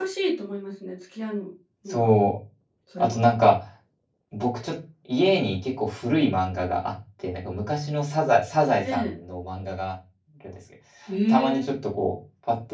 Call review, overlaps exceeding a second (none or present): none